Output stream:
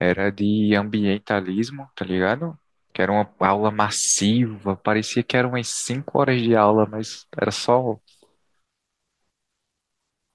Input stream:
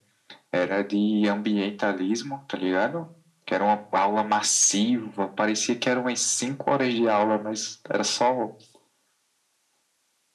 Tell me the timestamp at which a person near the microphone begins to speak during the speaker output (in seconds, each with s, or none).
none